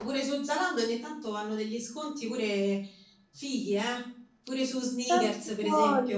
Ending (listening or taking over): taking over